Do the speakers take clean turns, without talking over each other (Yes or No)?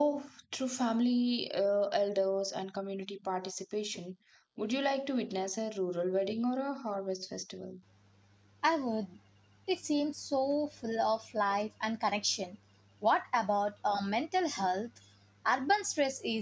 Yes